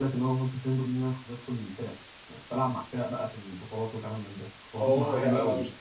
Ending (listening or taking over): taking over